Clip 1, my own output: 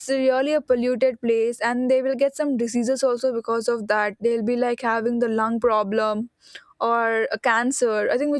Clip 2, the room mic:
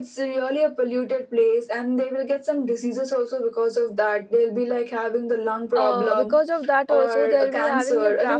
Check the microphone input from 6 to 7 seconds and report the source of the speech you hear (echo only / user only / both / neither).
both